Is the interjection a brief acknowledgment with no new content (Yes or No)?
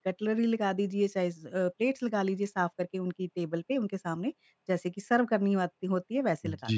No